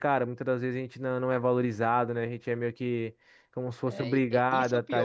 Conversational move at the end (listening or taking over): taking over